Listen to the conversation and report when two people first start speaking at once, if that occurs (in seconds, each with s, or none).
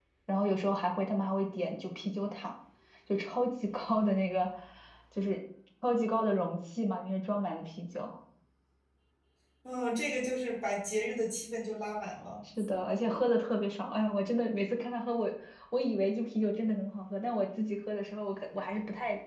none